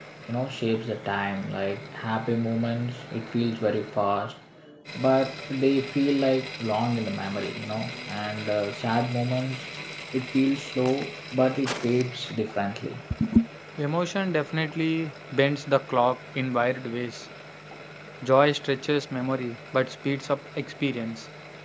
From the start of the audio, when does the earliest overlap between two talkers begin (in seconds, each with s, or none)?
none